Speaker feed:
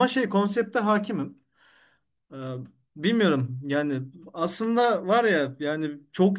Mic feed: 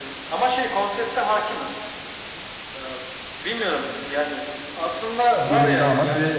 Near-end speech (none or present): present